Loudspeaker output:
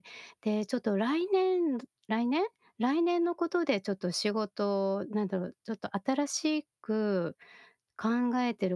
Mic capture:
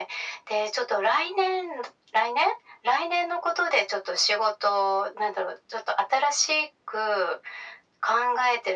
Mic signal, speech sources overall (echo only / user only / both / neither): echo only